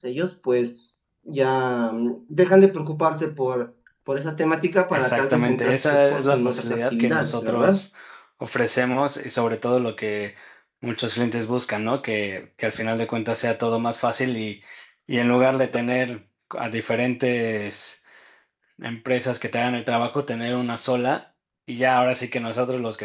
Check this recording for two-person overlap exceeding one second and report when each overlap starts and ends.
4.9-7.8

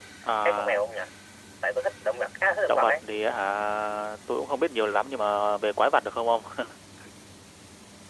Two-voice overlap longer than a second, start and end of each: none

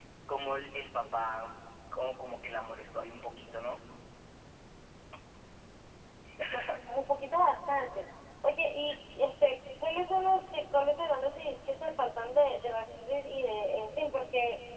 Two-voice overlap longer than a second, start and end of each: none

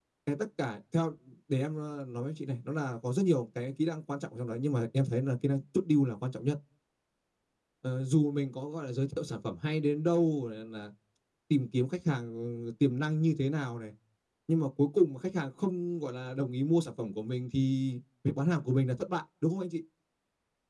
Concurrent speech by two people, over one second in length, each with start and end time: none

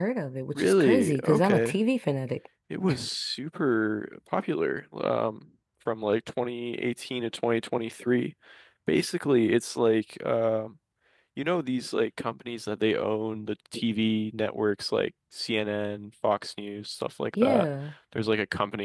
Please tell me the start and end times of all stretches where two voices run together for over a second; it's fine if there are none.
0.6-1.8

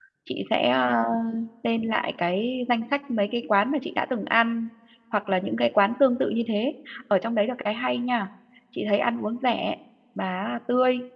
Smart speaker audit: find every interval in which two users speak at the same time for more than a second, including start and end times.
none

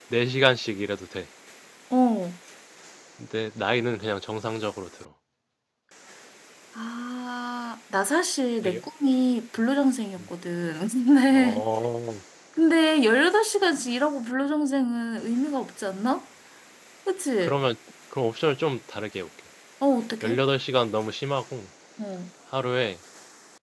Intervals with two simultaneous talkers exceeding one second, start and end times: none

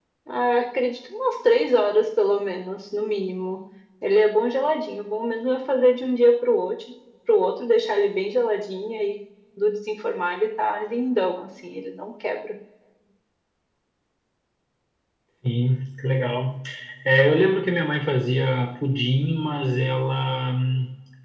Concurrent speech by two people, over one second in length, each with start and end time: none

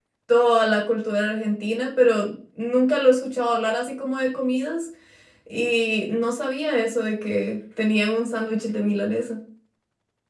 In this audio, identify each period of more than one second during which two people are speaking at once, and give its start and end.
none

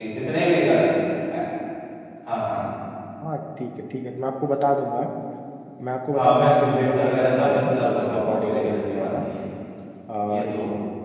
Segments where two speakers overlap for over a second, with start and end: 6.1-9.2

